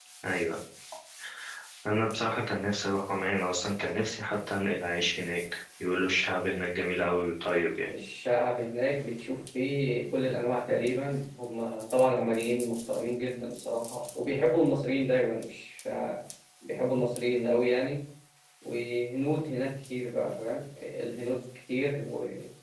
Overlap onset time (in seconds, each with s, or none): none